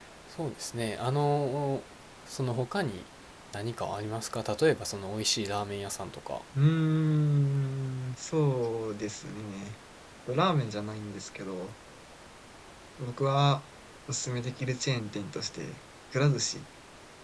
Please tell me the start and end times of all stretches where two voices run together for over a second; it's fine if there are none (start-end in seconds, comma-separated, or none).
none